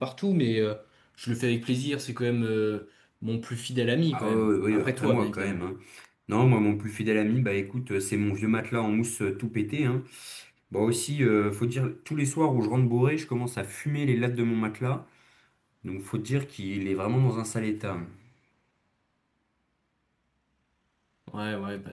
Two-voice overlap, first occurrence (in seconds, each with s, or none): 4.1 s